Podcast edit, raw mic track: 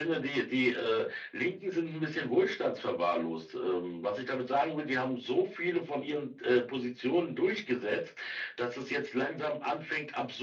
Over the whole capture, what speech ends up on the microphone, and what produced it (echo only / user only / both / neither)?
echo only